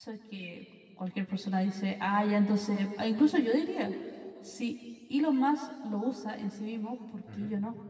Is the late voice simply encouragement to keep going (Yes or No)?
No